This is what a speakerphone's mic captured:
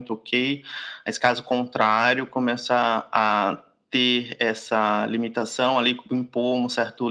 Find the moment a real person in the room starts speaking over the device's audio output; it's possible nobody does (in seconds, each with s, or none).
none